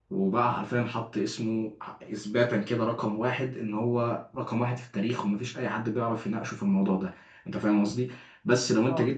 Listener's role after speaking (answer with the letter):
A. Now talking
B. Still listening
B